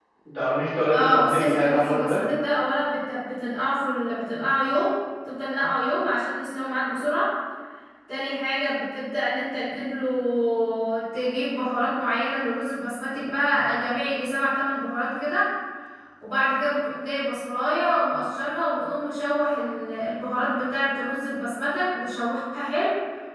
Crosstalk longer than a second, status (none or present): present